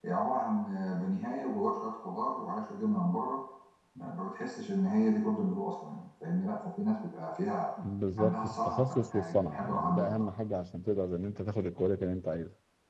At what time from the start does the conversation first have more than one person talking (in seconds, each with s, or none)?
8.2 s